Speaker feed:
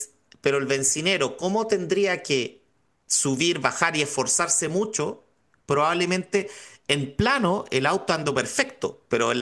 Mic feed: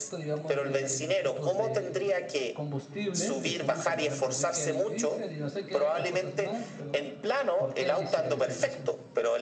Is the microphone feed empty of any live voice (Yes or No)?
No